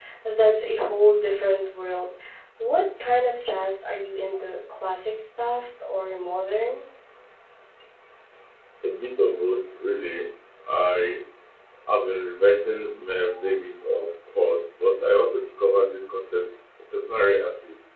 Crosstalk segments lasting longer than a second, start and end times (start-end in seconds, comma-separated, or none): none